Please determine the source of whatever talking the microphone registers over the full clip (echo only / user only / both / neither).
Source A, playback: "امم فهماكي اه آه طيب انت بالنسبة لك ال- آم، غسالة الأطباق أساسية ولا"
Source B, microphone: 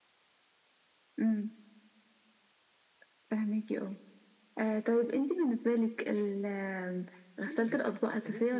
both